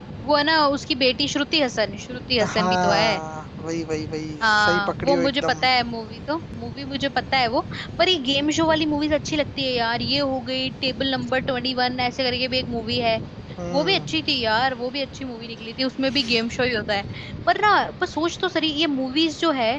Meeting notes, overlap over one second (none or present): present